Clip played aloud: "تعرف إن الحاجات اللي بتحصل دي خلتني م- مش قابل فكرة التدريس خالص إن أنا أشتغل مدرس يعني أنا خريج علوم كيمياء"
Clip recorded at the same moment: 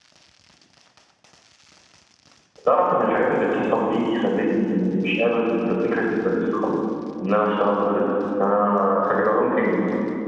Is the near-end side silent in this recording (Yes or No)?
Yes